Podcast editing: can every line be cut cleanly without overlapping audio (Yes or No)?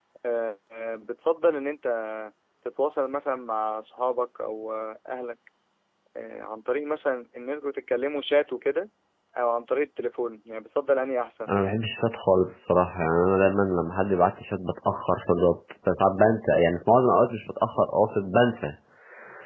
Yes